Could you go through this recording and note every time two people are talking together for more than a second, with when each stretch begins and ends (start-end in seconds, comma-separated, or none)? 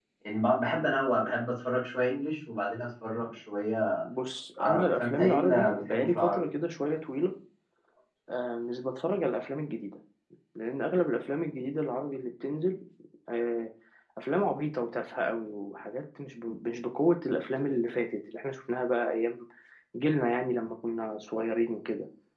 4.6-6.5